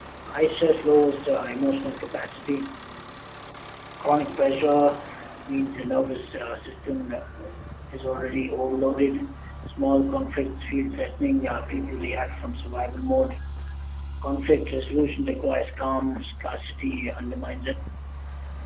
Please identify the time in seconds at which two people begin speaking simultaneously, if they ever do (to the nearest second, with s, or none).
none